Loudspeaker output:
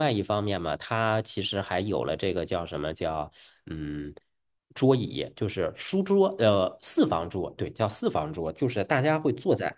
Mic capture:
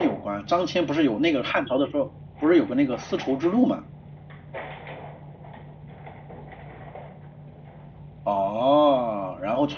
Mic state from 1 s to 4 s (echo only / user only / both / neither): user only